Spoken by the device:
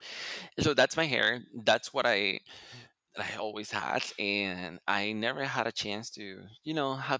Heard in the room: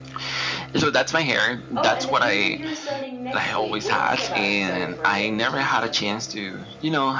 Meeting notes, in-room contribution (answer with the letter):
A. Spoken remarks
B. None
A